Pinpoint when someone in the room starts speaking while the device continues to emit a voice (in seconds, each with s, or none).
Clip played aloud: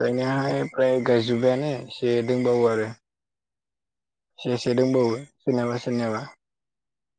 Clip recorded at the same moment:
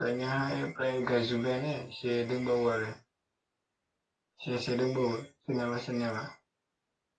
none